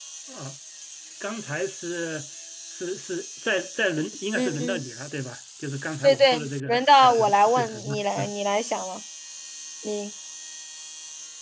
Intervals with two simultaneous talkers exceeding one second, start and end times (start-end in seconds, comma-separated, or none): 6.0-8.3